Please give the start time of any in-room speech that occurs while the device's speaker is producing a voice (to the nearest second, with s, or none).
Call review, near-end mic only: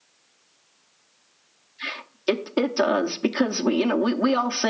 none